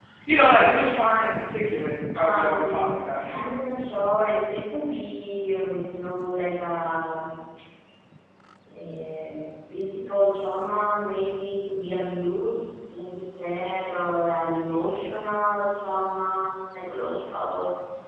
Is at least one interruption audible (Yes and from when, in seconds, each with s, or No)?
Yes, from 2.1 s